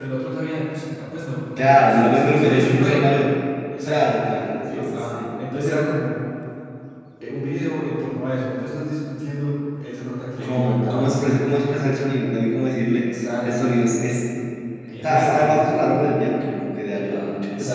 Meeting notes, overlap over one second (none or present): present